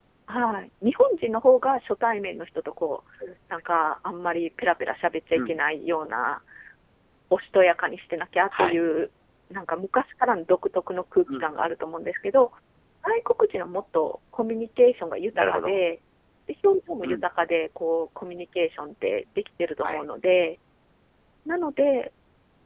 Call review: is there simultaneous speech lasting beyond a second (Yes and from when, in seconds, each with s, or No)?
No